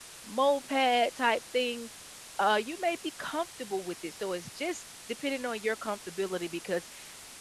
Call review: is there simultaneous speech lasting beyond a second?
No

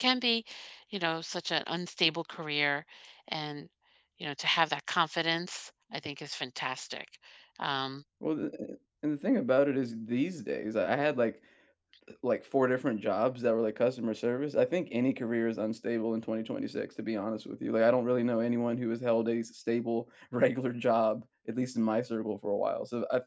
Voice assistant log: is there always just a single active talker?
Yes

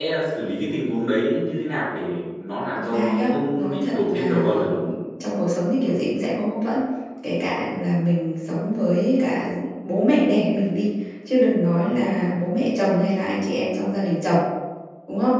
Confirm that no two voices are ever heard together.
No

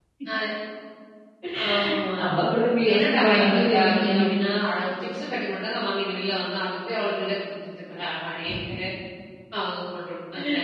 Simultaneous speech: Yes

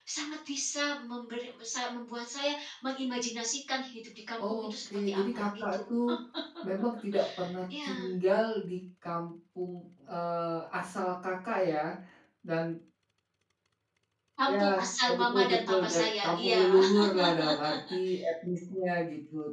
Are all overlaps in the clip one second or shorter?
No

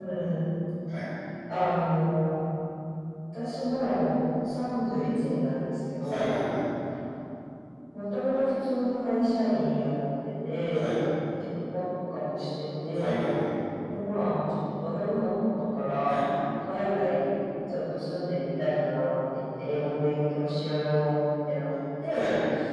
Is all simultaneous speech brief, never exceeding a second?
Yes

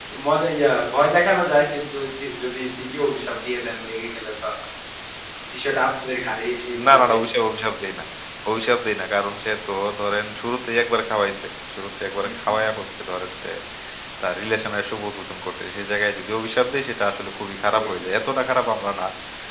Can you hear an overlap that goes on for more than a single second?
No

